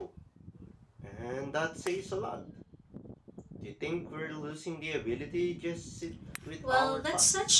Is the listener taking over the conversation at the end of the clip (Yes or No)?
Yes